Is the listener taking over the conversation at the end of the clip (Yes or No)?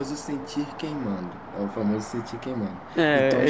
Yes